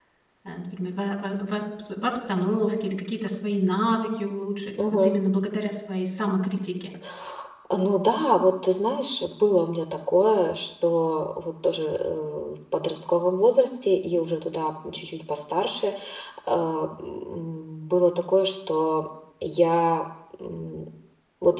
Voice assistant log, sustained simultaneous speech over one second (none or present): none